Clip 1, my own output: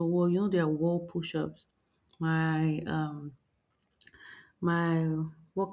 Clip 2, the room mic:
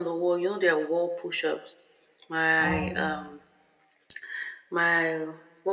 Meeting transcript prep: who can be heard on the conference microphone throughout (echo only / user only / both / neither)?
both